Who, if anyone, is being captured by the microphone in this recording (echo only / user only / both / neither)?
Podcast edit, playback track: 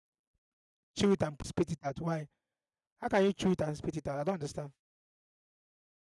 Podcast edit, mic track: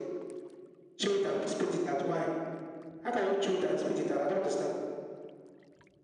echo only